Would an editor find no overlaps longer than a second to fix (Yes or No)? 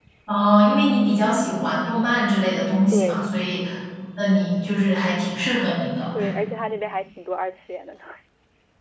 Yes